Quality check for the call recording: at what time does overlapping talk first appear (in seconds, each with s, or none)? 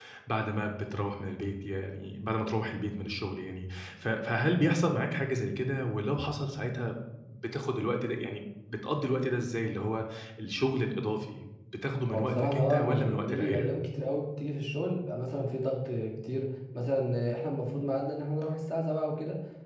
12.1 s